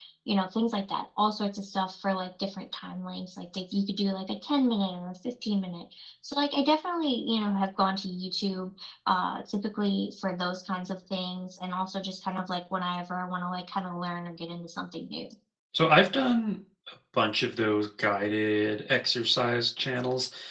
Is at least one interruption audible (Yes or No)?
No